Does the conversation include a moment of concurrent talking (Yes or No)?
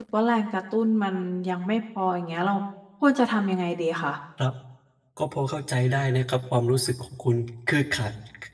No